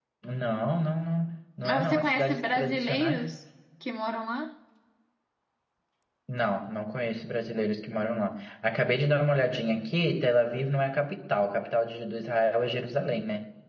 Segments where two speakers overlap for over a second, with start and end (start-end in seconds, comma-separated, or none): 1.6-3.2